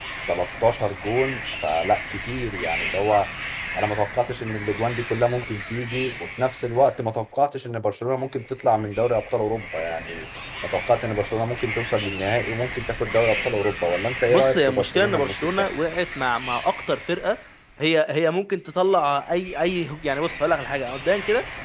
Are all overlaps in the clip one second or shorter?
No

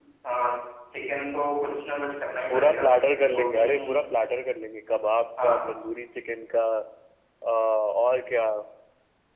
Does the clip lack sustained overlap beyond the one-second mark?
No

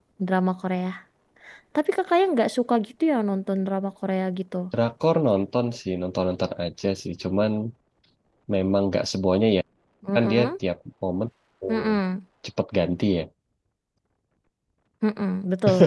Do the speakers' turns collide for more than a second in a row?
No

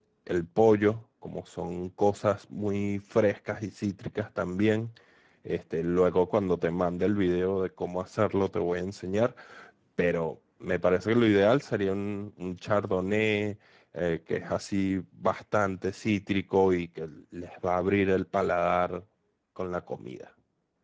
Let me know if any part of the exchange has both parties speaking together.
No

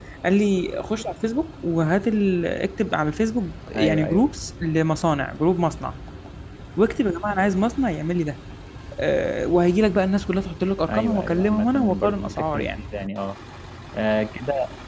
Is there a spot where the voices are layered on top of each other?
Yes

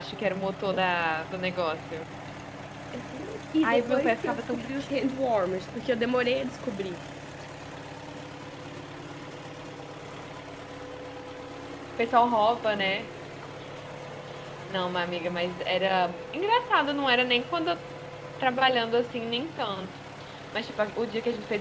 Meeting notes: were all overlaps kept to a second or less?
No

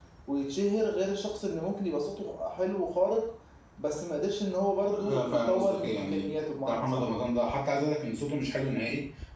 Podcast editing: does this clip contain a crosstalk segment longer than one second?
Yes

